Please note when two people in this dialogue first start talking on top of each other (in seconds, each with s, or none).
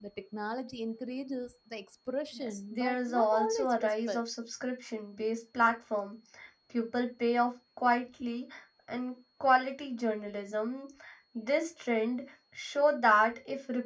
2.4 s